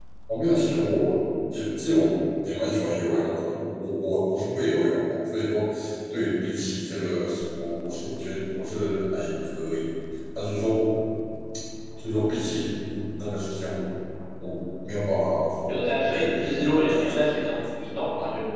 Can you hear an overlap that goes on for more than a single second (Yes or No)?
Yes